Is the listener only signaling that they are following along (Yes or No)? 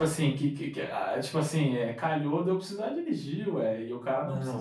No